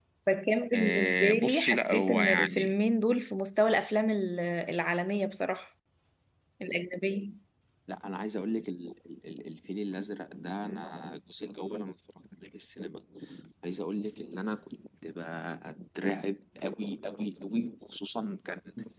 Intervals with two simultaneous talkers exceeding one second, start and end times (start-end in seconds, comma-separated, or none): 0.7-2.8